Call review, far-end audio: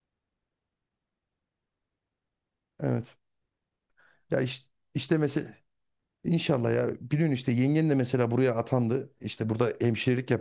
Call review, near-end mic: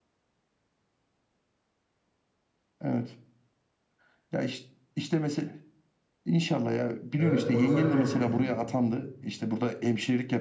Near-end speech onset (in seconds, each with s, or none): 7.2 s